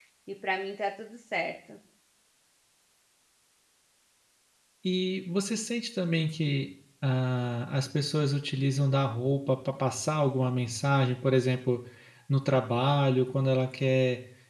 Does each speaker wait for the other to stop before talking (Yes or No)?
Yes